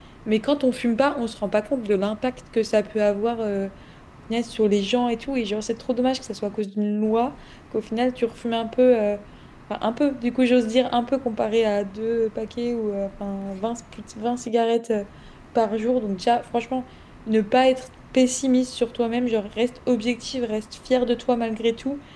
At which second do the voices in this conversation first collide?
none

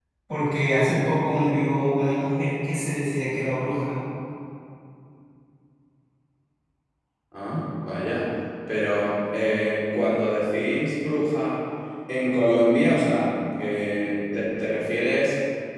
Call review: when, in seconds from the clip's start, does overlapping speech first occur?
none

